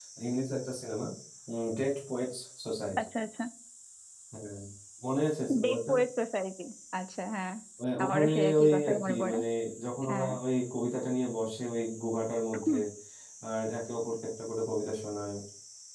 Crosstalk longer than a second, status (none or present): present